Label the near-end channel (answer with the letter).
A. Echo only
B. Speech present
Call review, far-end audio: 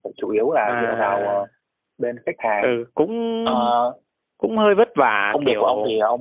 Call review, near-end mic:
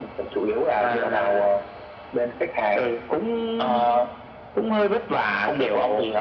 A